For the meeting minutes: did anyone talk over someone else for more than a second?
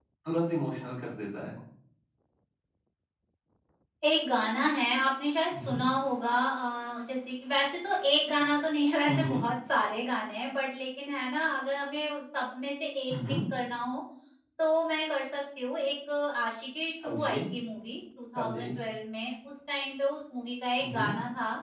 No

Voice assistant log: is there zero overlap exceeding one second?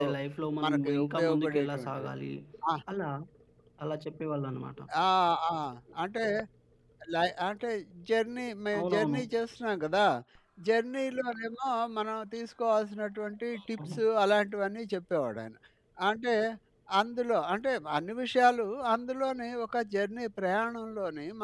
No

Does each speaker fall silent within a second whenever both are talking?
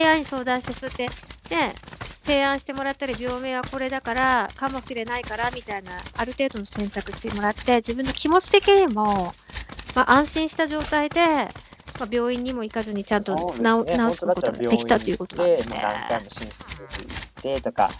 No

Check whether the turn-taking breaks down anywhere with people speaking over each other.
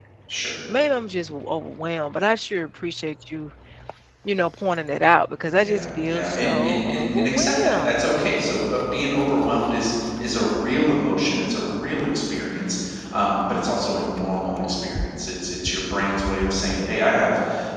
Yes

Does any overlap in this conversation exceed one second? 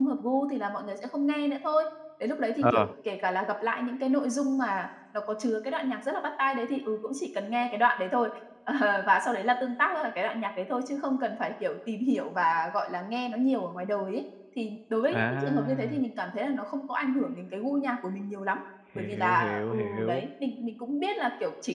Yes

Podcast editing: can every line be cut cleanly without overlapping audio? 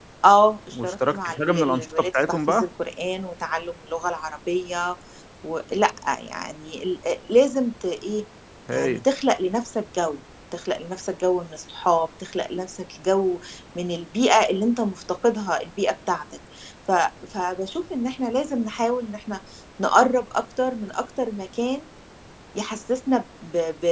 No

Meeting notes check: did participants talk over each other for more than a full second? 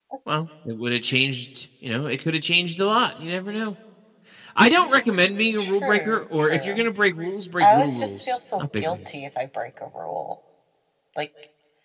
Yes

